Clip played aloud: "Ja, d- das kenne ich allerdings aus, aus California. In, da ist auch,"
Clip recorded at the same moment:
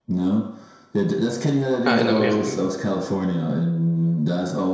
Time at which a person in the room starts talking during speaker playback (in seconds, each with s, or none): 1.9 s